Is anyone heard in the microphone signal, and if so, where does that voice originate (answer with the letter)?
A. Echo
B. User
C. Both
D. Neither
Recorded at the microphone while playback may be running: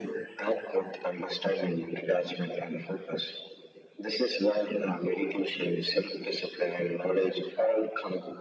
A